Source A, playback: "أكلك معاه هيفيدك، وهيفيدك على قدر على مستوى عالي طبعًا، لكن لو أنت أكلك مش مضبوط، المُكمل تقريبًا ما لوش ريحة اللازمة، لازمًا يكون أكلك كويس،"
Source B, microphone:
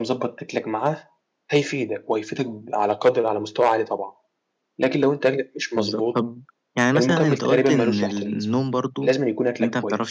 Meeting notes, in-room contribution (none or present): present